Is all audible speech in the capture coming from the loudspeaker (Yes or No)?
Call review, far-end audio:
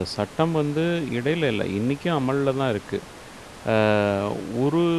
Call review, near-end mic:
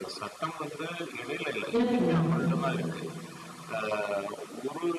No